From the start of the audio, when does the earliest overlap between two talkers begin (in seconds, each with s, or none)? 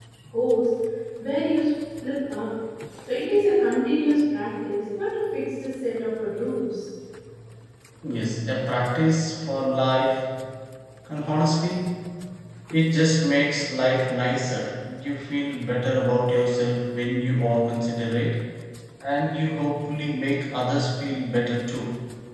none